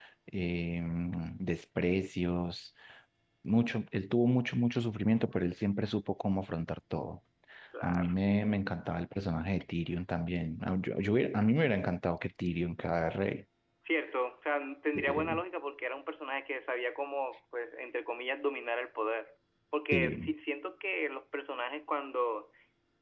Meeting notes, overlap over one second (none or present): none